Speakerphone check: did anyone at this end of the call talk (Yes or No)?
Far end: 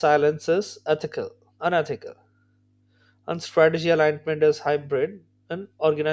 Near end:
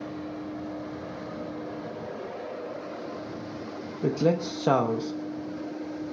Yes